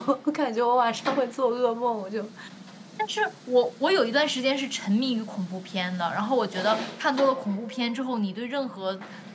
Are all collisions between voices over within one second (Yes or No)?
Yes